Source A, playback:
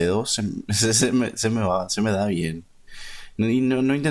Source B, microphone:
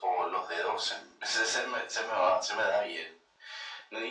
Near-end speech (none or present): none